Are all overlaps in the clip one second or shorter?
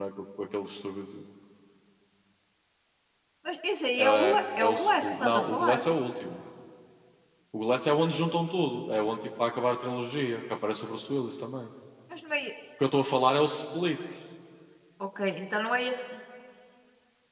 No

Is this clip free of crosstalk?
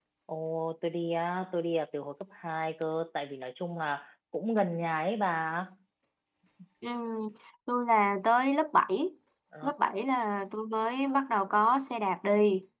Yes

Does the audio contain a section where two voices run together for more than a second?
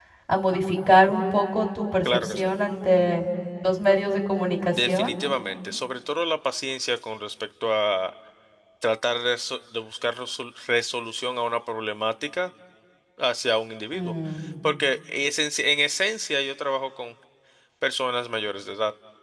No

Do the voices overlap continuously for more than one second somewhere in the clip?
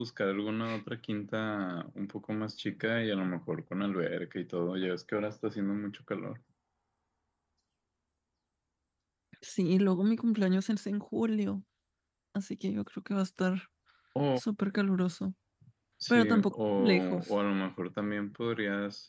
Yes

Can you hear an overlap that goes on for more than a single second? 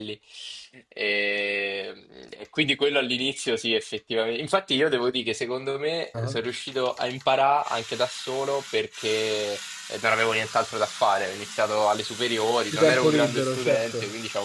Yes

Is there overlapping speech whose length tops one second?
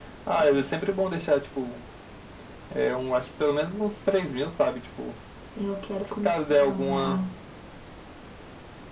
Yes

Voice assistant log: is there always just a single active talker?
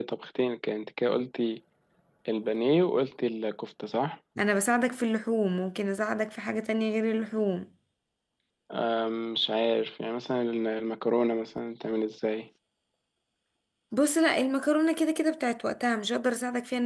Yes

